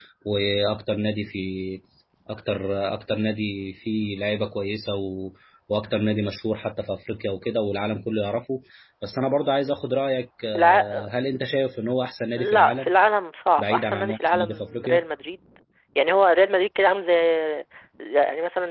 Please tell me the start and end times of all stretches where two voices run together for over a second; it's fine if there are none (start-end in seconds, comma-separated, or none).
13.6-15.0